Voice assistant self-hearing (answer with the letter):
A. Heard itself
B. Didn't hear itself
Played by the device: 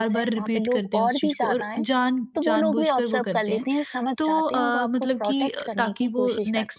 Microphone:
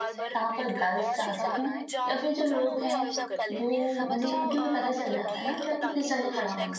A